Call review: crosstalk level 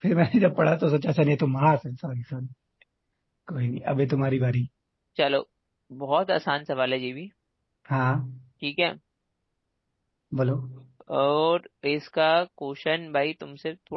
none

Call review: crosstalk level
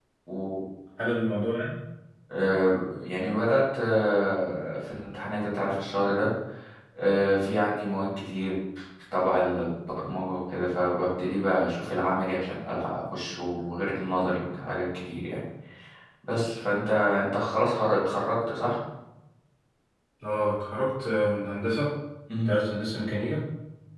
none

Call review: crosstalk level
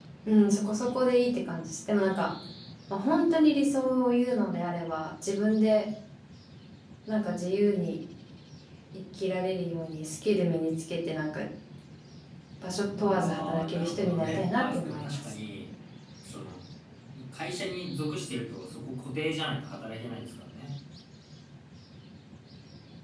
present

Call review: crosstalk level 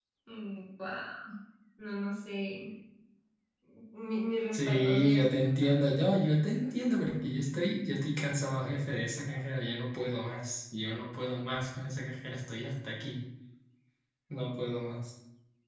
present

